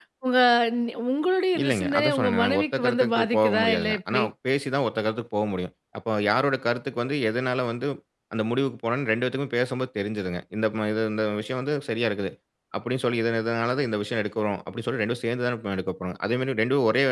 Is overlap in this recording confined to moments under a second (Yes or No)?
No